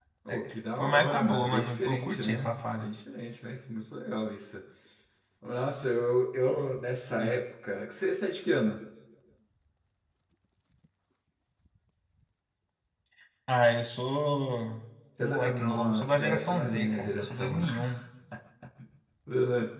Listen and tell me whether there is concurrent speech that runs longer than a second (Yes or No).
Yes